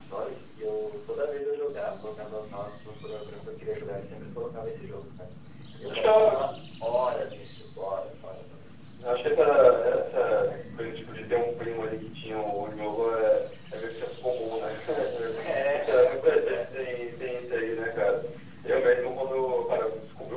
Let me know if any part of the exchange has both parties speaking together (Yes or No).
Yes